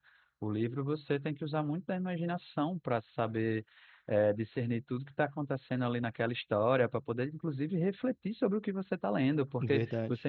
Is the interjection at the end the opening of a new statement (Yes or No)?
No